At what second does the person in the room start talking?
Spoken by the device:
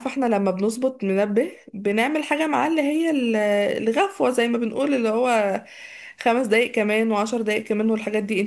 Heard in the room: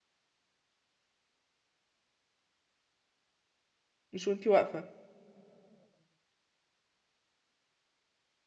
4.1 s

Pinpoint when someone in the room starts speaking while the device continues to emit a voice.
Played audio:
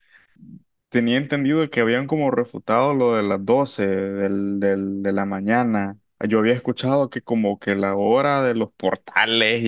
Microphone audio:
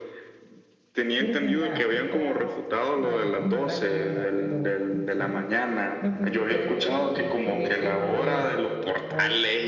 1.1 s

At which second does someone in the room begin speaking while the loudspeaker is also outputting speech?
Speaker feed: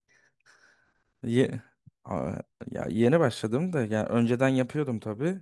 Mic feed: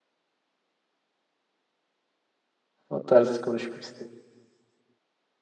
2.9 s

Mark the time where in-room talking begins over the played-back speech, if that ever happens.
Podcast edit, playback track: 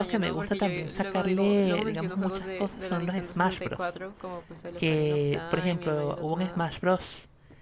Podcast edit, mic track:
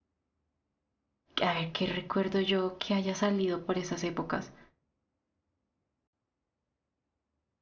1.4 s

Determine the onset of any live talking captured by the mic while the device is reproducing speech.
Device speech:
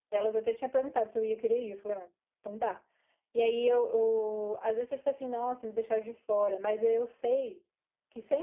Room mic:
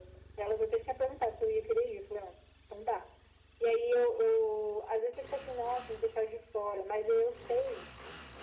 none

